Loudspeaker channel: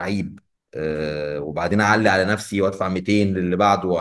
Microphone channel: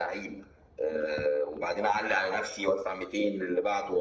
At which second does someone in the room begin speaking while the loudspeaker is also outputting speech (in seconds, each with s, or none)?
none